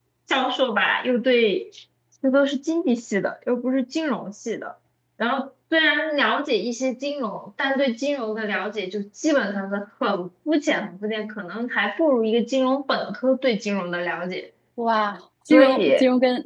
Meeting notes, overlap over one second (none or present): none